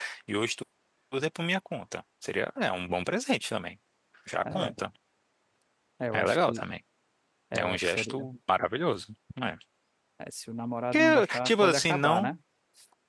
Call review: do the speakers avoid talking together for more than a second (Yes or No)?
No